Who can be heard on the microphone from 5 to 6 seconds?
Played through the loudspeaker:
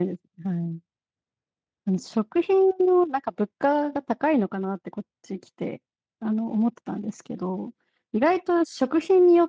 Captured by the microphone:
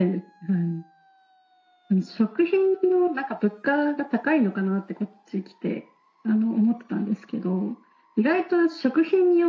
echo only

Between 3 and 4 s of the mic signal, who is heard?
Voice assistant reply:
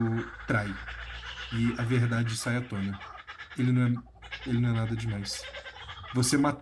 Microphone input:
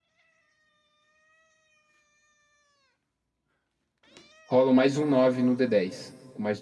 neither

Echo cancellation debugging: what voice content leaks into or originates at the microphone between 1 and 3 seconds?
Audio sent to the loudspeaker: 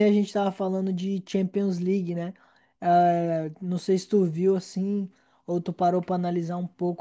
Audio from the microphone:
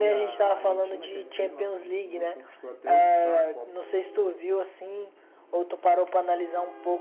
both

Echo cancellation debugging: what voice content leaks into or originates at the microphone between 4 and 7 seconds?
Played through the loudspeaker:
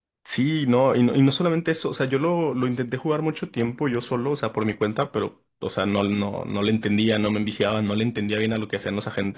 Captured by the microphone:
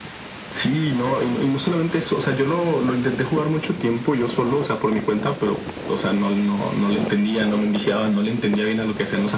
echo only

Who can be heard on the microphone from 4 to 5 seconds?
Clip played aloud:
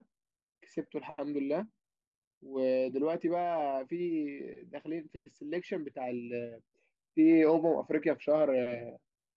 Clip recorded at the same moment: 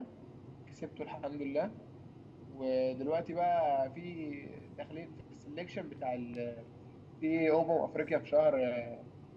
echo only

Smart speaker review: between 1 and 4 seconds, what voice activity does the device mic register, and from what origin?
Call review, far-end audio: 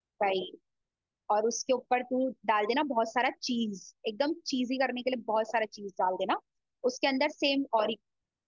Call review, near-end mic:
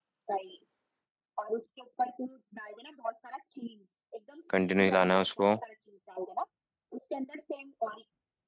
echo only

